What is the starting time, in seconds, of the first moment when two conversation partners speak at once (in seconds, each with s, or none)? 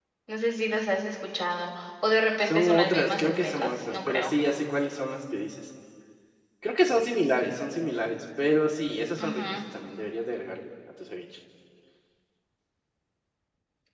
2.4 s